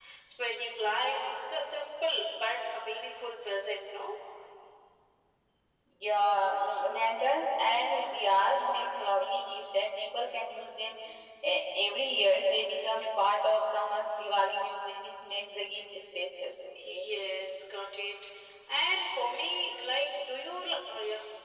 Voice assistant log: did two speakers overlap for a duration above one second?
No

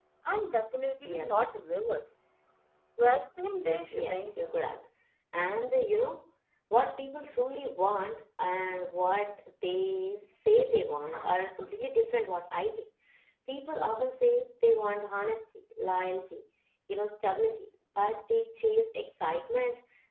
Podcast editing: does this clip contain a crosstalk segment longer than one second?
No

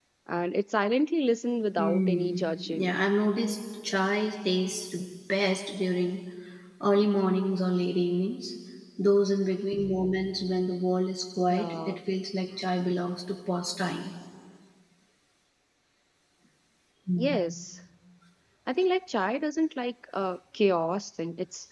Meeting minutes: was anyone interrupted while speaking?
Yes, from 1.8 s

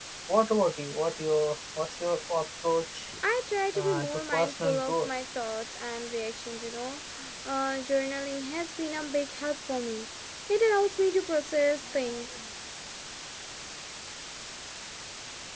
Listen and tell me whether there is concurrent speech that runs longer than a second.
Yes, from 3.8 s

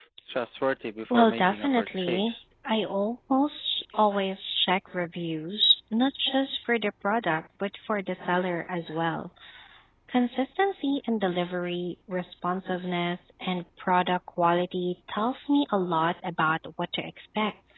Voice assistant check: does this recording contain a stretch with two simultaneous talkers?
Yes, from 1.1 s

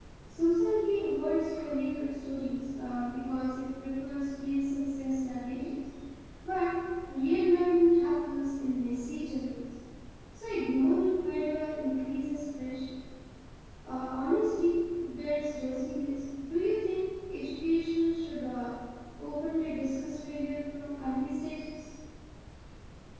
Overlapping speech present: No

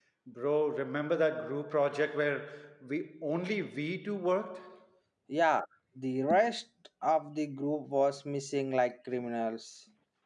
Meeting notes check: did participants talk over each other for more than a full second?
No

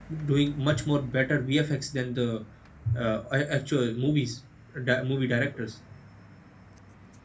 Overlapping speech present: No

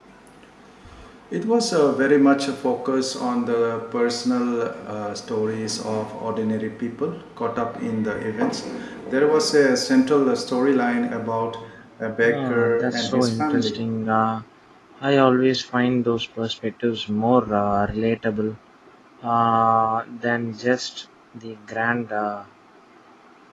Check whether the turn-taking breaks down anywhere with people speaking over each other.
Yes, from 12.2 s

